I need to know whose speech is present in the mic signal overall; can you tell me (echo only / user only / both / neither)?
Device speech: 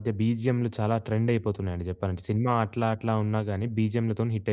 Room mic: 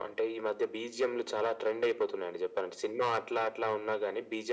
echo only